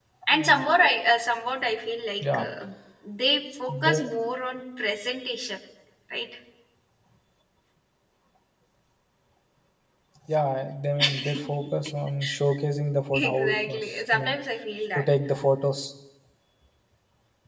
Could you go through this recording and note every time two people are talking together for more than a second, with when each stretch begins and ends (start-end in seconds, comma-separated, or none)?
13.1-14.3